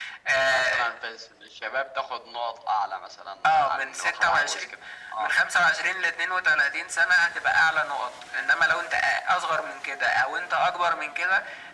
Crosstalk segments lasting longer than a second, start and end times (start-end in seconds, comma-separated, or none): 3.5-4.7